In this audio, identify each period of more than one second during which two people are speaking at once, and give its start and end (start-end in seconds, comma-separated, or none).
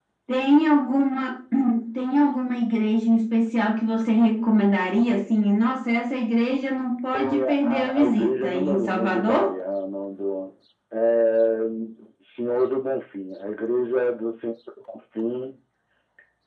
7.1-9.5